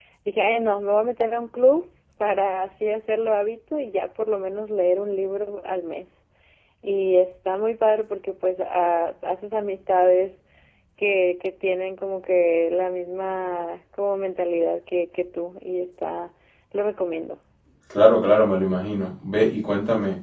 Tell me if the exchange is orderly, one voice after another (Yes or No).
Yes